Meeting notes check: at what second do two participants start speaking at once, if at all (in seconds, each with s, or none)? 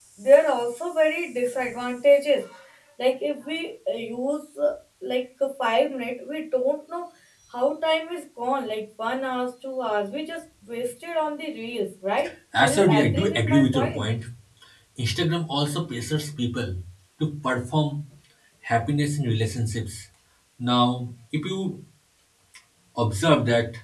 12.6 s